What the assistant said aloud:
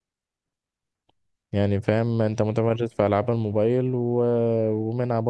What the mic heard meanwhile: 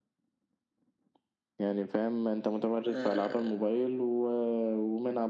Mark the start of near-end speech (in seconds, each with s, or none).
2.9 s